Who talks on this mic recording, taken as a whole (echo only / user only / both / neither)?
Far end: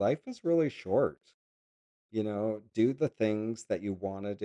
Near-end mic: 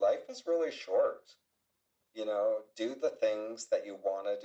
echo only